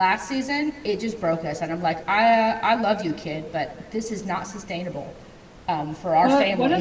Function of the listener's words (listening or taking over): taking over